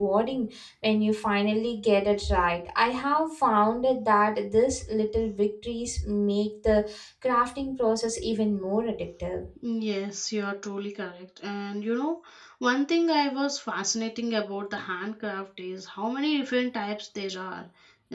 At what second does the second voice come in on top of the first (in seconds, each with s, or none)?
none